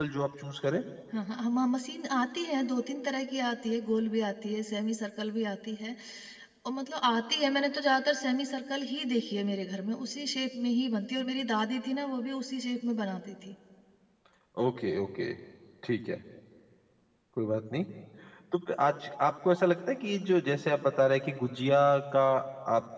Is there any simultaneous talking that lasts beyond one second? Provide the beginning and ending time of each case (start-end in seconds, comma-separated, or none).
none